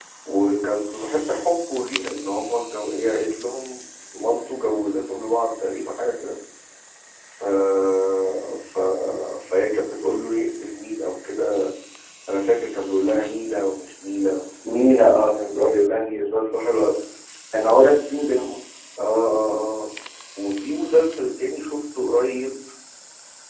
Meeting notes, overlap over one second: none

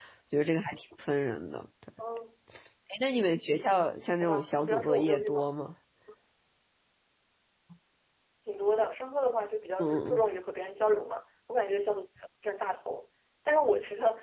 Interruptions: present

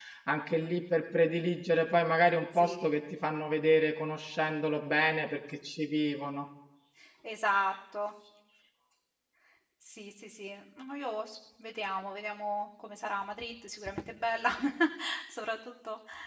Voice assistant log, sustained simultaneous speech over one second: none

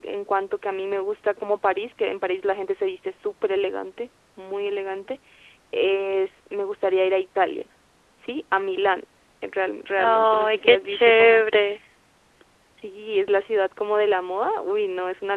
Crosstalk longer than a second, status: present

